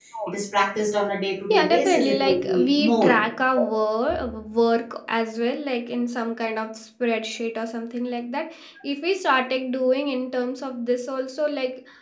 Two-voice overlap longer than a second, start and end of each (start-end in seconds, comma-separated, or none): 1.5-3.1